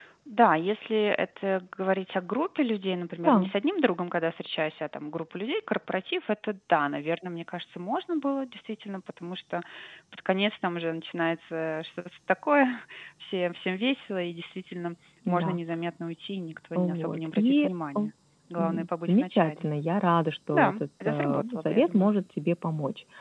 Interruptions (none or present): present